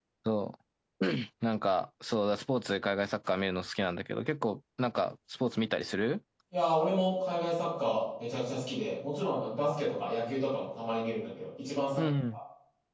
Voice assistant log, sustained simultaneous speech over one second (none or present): none